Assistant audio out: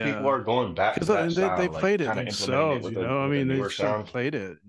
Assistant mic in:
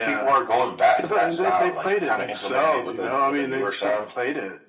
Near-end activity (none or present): none